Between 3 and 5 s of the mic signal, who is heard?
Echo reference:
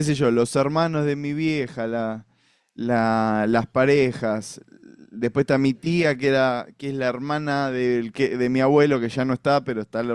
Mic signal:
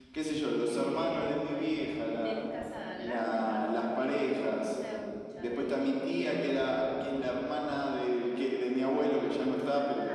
both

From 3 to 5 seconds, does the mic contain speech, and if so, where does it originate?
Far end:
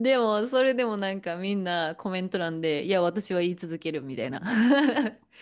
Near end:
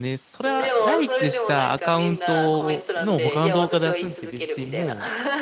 both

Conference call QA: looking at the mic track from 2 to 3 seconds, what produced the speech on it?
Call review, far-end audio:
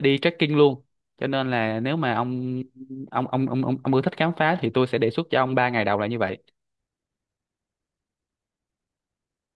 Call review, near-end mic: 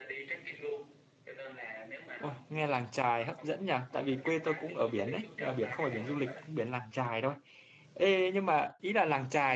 both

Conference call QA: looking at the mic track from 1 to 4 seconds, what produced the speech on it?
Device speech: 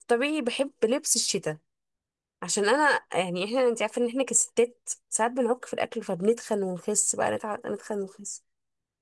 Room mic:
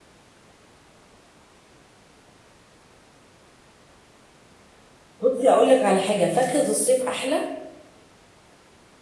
neither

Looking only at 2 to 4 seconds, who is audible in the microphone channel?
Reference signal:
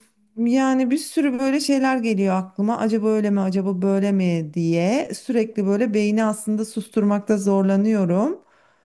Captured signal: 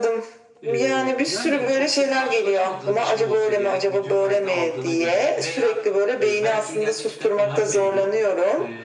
both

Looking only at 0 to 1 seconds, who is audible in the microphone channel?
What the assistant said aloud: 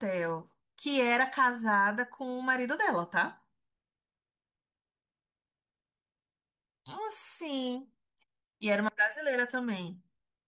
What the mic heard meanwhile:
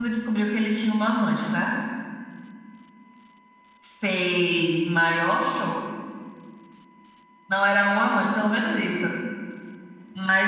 user only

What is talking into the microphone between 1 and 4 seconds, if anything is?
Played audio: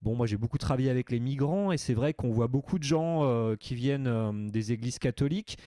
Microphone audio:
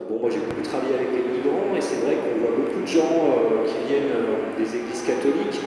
echo only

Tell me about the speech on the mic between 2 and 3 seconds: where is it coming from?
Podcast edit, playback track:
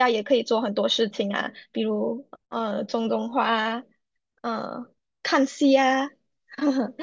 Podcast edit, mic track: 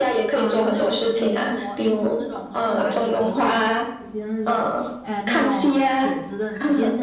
both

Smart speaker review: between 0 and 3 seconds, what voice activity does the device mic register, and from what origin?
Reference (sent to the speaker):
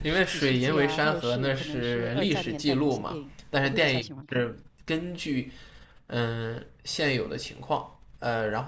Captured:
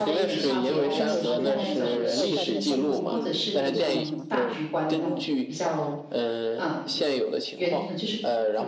both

